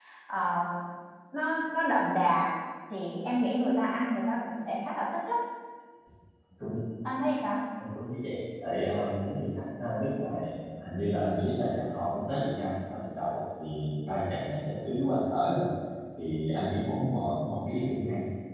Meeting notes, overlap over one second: none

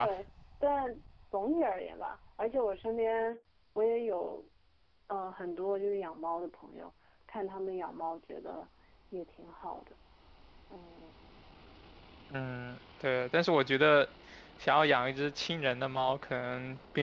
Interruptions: none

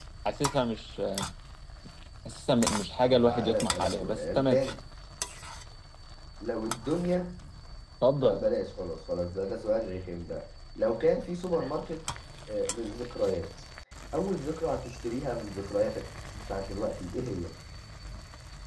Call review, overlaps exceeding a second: present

